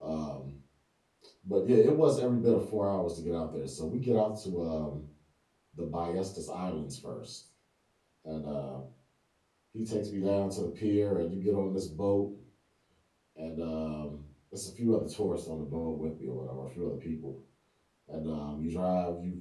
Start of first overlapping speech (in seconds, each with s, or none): none